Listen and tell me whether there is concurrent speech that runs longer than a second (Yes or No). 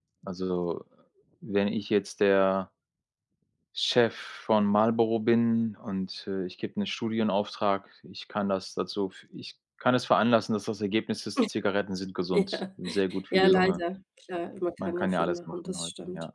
Yes